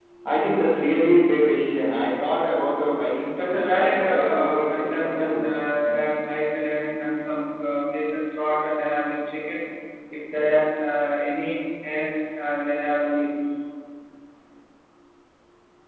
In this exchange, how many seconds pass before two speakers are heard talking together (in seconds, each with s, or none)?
3.4 s